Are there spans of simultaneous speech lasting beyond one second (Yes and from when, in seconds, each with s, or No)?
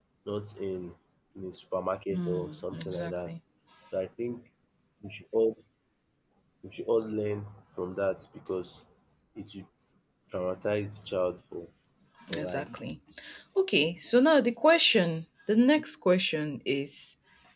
Yes, from 2.1 s